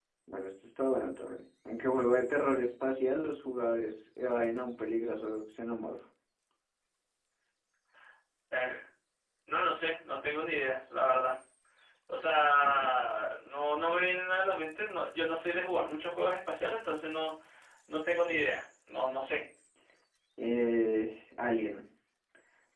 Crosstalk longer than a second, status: none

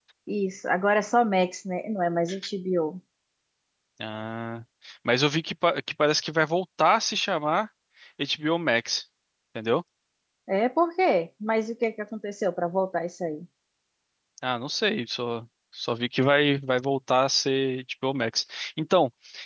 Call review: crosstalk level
none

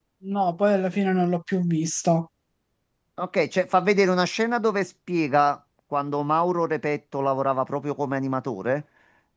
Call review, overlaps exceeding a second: none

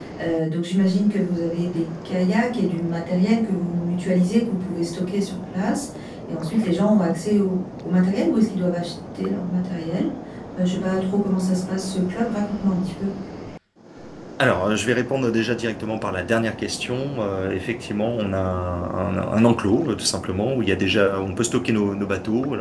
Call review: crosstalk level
none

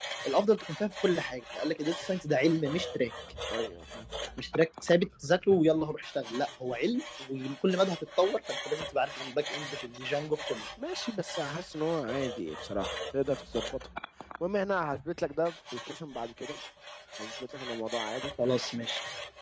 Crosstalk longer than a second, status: none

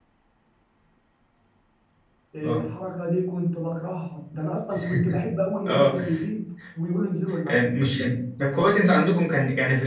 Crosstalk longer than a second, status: none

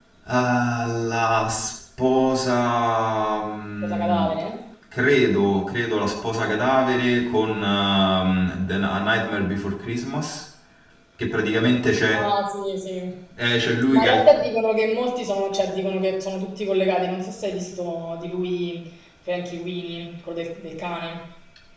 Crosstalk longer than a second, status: none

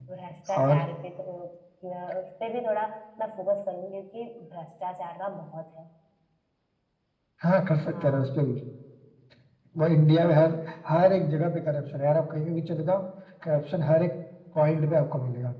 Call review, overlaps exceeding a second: none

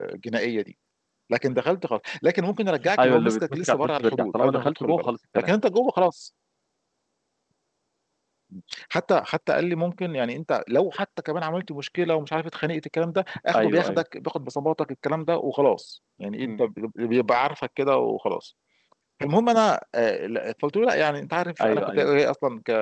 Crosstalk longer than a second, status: present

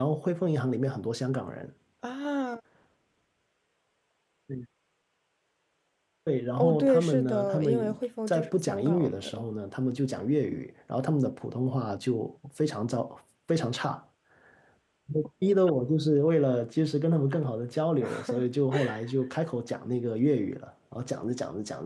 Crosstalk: present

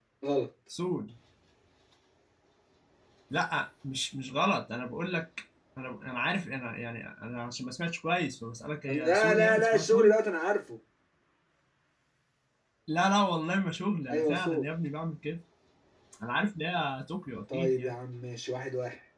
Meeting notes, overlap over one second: present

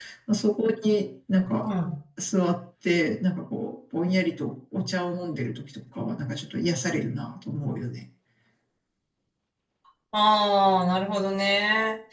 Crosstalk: none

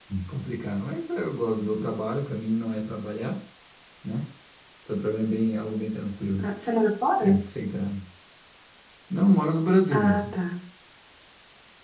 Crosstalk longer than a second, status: none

